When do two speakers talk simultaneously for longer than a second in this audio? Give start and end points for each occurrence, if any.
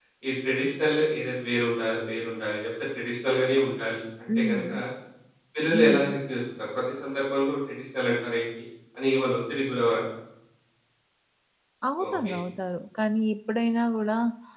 none

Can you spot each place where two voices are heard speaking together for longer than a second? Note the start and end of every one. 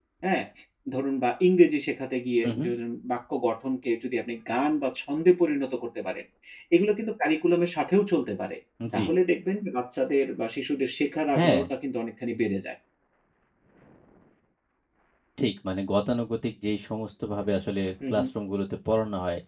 none

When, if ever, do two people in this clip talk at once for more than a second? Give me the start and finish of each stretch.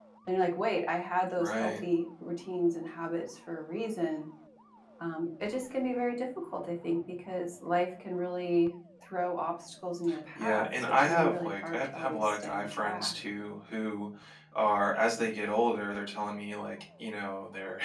10.3-13.1

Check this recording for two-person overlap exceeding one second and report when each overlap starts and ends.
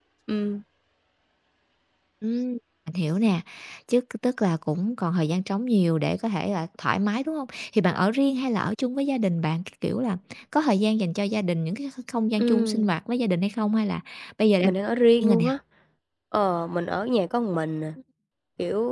none

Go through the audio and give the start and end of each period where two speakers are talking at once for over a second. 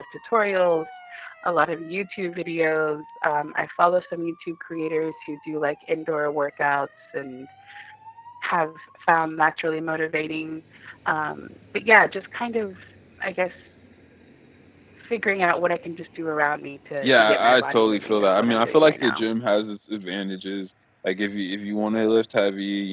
17.0-19.2

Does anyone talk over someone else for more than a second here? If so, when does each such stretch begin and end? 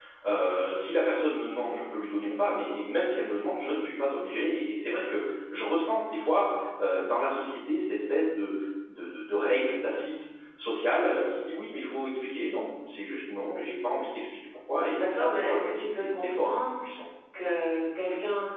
14.9-16.7

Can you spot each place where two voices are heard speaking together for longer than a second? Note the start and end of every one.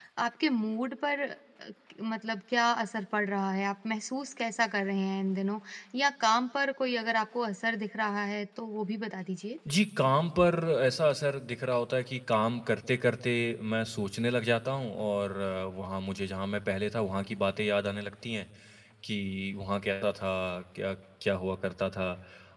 none

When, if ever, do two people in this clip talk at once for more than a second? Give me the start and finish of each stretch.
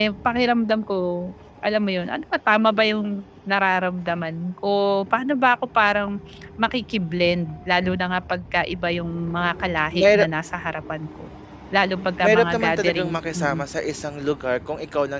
12.2-13.6

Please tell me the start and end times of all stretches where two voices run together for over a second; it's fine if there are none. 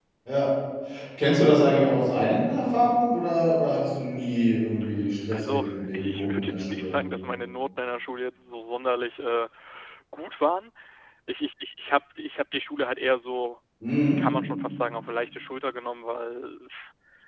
5.3-7.0

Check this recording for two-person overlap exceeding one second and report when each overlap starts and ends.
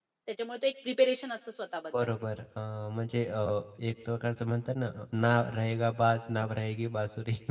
none

